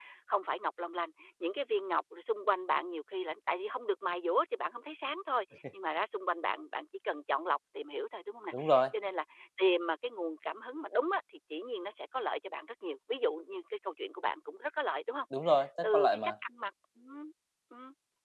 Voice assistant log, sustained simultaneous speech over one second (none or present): none